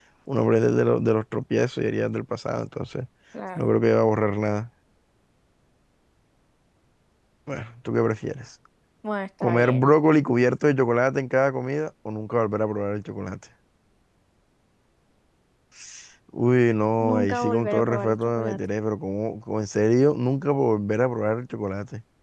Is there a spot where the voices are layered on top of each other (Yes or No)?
Yes